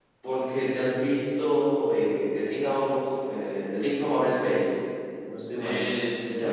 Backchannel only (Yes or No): No